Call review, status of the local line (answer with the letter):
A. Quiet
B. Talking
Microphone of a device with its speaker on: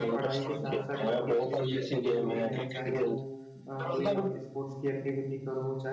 B